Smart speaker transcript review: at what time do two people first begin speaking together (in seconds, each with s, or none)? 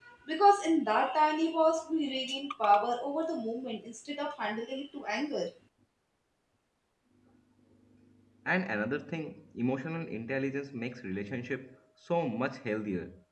none